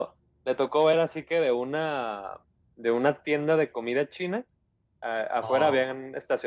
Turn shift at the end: No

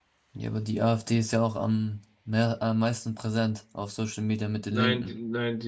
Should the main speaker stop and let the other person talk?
Yes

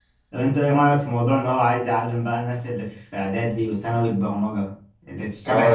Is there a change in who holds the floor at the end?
Yes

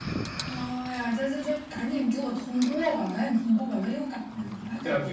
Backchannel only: No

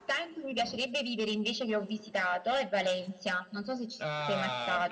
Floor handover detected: Yes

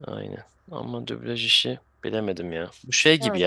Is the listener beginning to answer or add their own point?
No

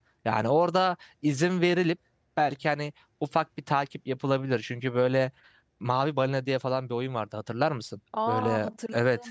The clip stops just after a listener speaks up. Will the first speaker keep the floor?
No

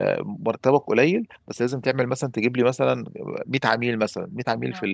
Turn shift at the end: No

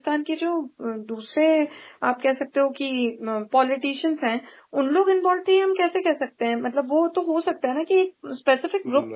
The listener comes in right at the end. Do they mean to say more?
Yes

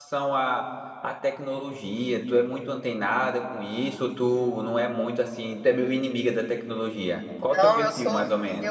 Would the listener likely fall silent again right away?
No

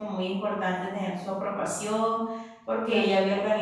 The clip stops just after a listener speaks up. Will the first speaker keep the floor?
Yes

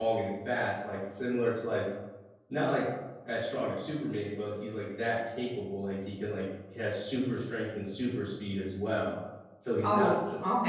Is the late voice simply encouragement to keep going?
Yes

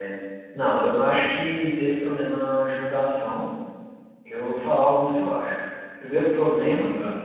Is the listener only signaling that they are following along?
Yes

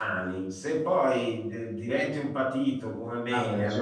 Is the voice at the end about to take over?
No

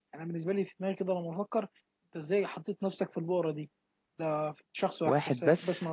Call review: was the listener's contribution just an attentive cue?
Yes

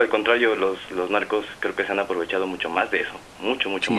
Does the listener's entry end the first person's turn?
Yes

